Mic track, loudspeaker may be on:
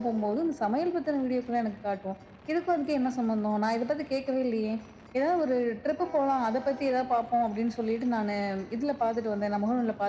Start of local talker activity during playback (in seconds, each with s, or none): none